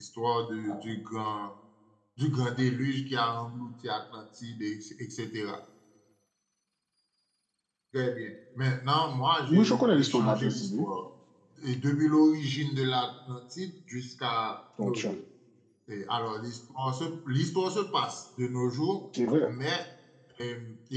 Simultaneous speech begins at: 9.5 s

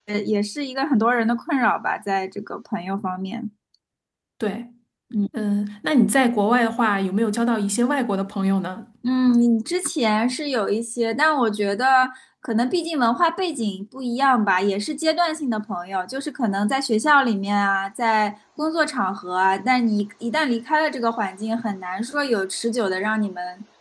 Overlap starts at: none

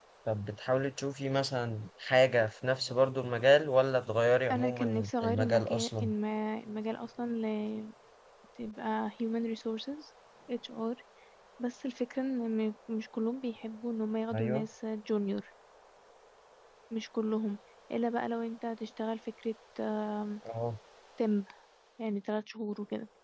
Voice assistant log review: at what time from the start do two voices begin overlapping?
4.5 s

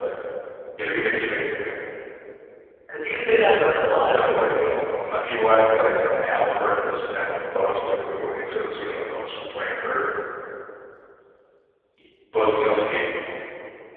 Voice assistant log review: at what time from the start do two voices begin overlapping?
4.0 s

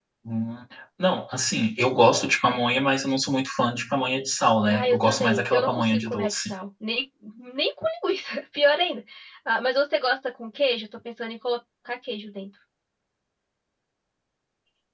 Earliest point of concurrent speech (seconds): 4.6 s

